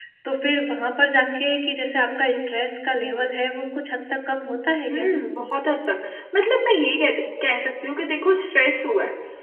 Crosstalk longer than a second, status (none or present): none